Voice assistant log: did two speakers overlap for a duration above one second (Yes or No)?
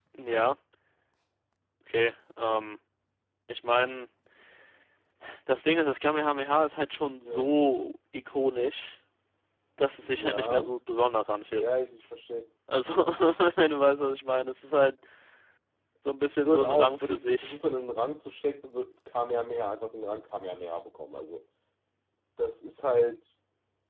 Yes